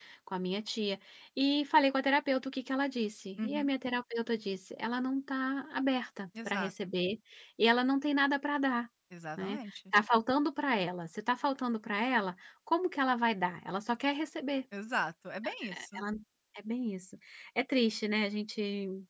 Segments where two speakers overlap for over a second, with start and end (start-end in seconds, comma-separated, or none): none